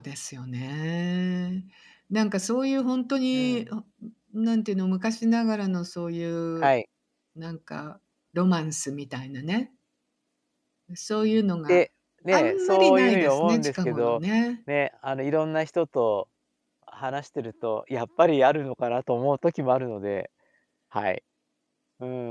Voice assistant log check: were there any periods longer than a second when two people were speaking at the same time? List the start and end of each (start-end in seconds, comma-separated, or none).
12.3-14.2